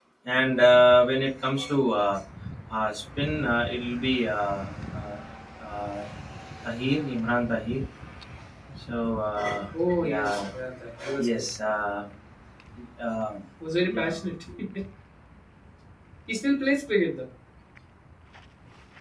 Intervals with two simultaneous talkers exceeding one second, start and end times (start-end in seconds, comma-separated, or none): none